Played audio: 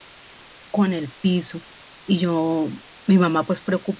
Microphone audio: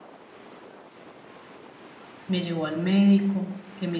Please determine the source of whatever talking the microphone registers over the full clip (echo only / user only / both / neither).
user only